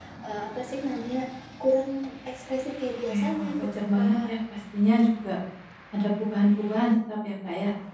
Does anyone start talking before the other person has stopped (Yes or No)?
Yes